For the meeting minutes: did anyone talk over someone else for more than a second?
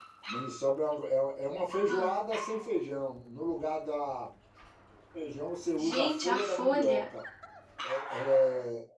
Yes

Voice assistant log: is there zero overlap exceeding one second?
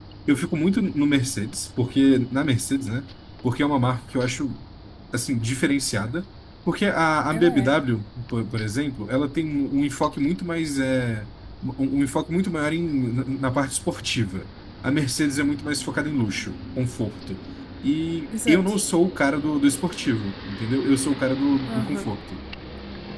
Yes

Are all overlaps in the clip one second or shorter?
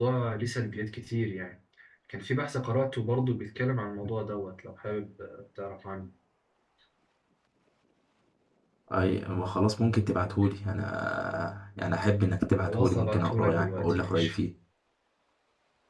No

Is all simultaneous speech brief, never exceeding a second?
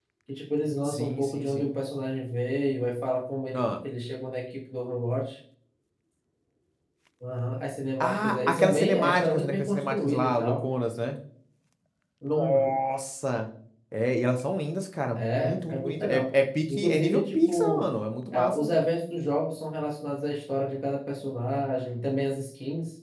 No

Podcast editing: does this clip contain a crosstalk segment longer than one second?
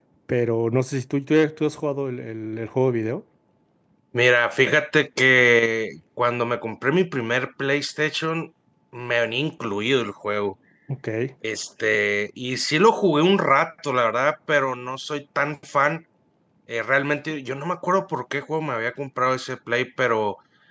No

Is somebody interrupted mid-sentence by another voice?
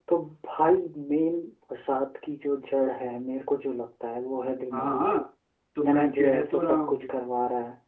Yes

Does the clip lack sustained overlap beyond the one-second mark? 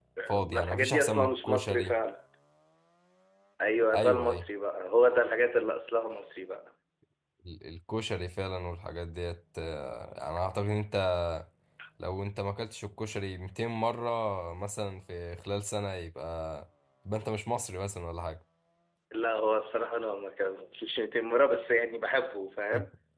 No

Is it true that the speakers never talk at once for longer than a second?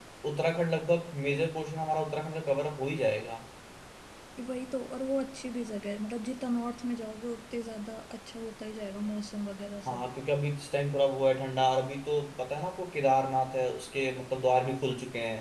Yes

